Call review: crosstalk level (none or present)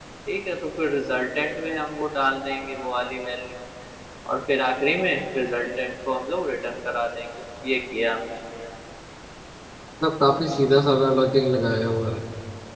none